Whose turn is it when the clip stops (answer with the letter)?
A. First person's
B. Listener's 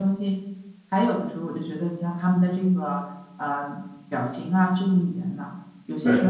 A